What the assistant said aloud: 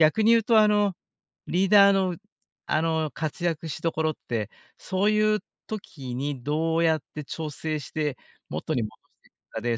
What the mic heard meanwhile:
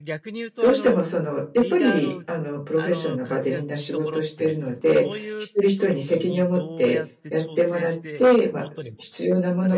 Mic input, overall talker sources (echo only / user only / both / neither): both